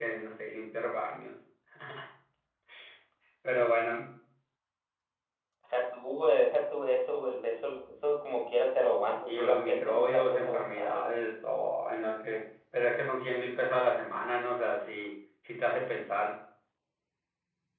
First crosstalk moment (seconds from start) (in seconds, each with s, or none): 9.0 s